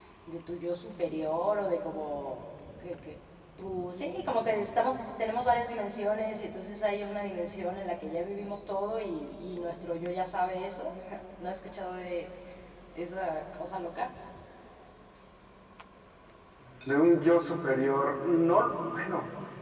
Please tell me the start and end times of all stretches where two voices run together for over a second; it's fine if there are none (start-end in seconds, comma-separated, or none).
none